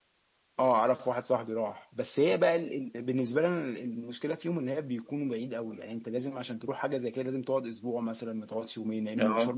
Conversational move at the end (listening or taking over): taking over